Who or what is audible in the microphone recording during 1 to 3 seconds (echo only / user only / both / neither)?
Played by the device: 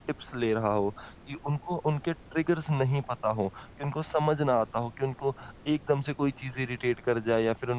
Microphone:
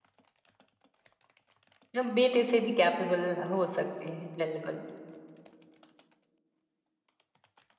user only